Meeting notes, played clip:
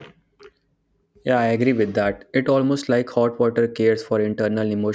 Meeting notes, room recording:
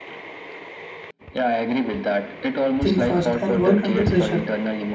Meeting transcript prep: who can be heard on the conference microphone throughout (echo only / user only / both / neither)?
both